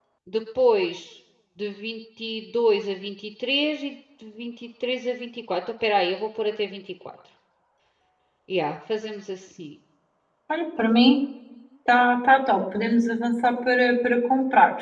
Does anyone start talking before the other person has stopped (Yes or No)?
No